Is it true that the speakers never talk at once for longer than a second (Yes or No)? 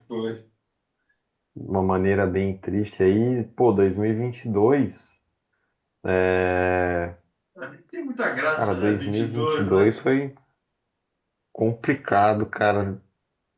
No